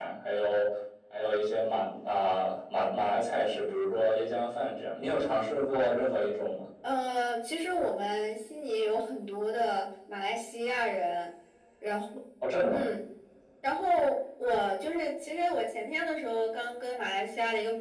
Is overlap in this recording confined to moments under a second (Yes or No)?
Yes